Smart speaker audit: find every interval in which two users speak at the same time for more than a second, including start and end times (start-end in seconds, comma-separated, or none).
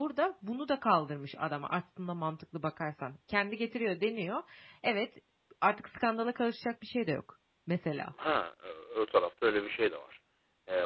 none